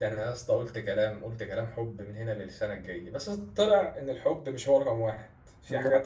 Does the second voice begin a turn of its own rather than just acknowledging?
No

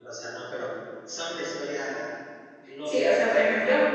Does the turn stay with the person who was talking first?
No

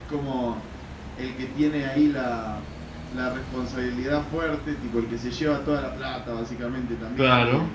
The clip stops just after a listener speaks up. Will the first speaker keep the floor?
Yes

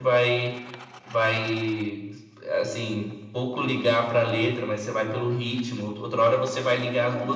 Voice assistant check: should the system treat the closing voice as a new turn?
No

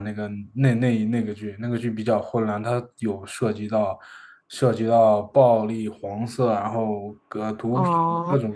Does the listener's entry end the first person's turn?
Yes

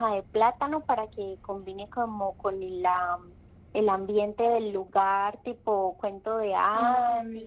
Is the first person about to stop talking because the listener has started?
Yes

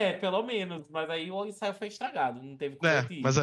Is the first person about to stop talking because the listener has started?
Yes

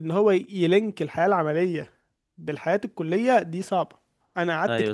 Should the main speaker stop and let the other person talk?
No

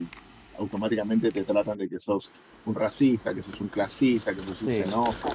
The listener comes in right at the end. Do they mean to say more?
No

